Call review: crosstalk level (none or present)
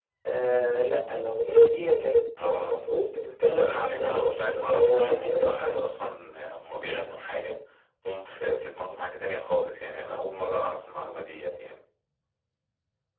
present